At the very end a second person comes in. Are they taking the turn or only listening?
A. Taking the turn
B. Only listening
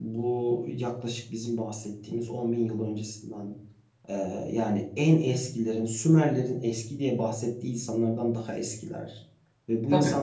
B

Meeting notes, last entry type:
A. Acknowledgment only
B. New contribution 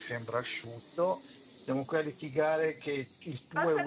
B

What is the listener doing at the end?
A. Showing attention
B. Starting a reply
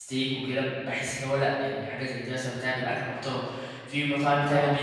A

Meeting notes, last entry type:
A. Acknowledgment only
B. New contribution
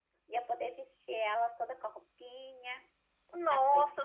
B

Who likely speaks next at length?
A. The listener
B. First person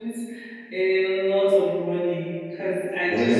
A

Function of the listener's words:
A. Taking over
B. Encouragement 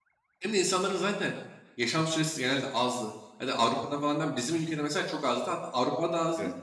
B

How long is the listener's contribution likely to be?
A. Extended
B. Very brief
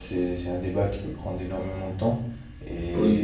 B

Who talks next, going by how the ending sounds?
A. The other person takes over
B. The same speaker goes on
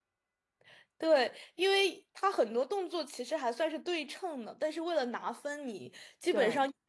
B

